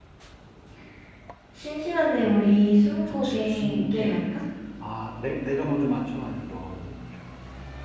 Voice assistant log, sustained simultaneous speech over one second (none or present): present